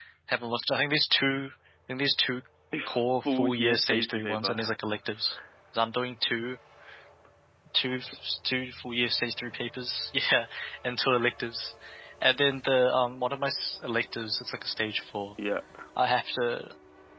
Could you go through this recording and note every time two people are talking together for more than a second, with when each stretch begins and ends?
3.2-4.7

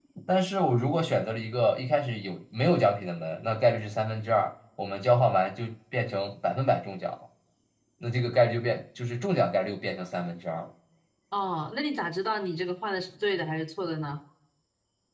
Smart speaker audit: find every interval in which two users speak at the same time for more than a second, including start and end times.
none

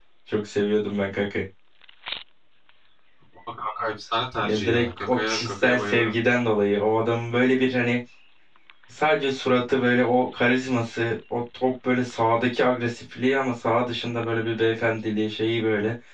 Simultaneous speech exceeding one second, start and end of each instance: 4.4-6.1

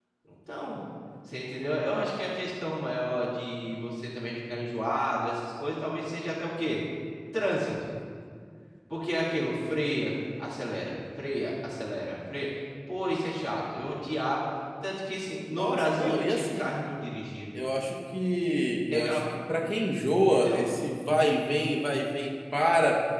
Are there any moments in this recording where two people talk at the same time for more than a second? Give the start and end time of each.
15.5-16.7

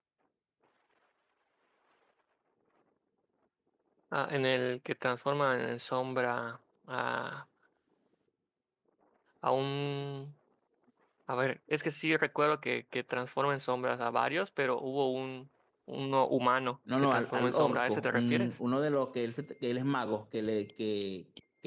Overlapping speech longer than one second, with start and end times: 17.0-18.6

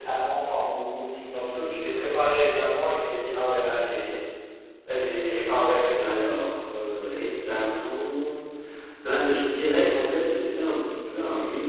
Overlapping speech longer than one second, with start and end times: none

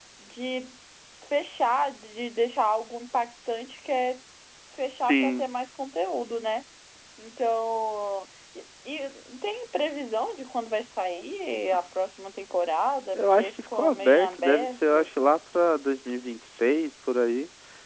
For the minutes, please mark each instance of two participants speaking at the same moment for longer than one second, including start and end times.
13.1-15.1

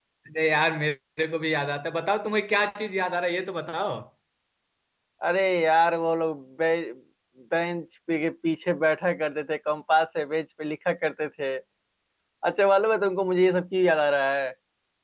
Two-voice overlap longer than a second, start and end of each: none

